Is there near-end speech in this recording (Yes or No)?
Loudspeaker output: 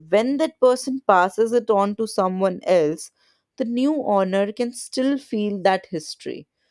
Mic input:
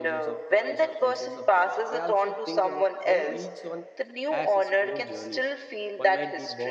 Yes